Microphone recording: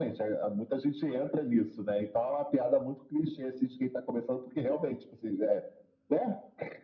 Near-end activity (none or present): none